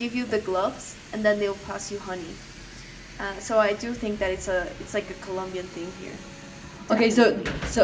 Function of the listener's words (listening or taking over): taking over